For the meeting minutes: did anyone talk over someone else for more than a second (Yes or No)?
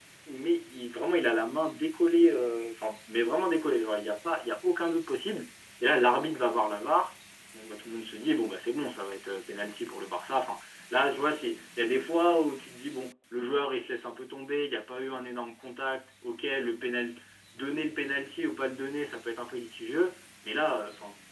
No